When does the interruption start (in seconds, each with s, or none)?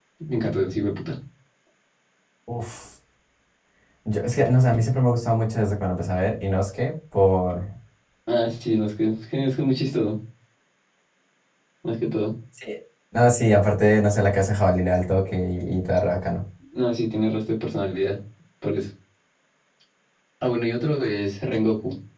none